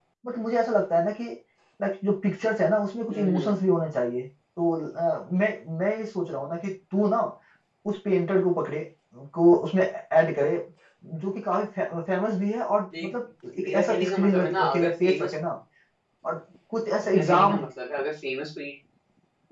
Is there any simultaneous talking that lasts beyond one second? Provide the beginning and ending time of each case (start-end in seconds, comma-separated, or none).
13.6-15.3